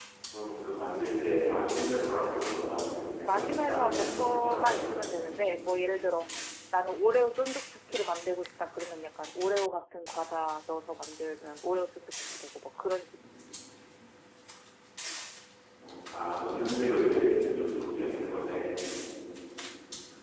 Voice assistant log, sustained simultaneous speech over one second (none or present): present